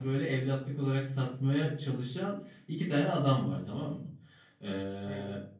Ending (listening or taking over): listening